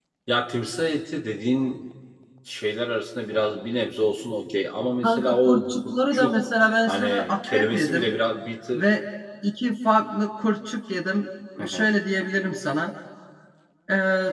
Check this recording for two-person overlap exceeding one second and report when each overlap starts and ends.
5.0-6.4, 6.9-8.1

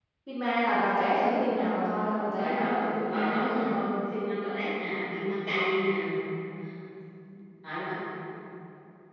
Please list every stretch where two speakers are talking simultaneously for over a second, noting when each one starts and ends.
2.4-3.8

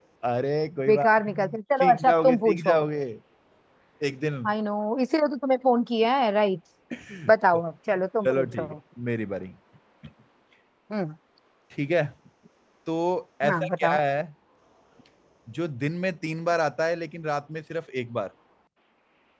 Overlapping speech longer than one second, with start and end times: 0.9-2.8

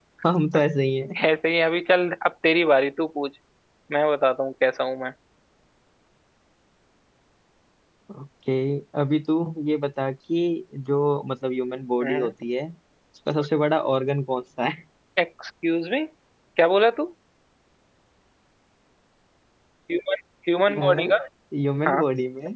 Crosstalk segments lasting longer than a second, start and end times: none

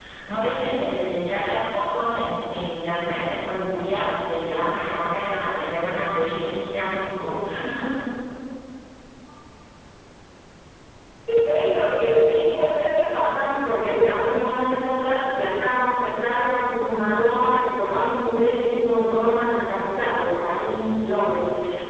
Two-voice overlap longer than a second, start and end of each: none

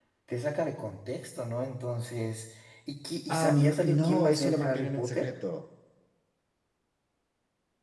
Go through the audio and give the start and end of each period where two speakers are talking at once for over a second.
3.3-5.3

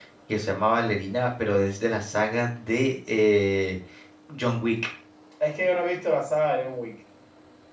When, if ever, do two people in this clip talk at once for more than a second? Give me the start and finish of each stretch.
none

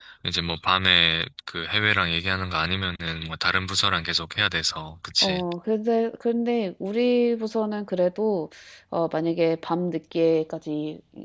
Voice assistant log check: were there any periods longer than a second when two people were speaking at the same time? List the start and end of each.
none

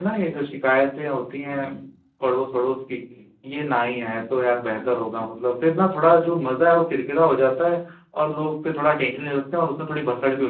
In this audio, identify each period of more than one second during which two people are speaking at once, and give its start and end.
4.1-5.4

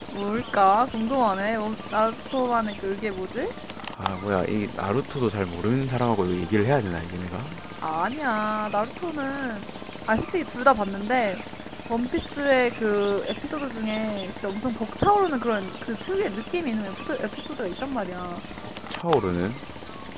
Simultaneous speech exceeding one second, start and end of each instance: none

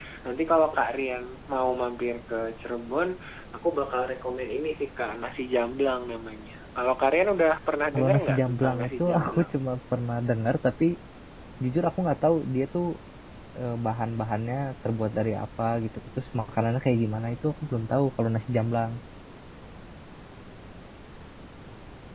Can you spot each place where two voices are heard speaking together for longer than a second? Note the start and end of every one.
7.9-9.5

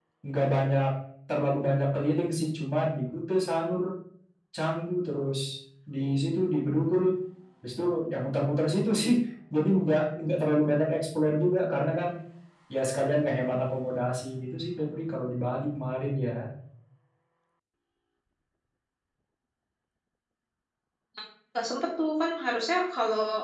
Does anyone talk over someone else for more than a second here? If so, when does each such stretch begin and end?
none

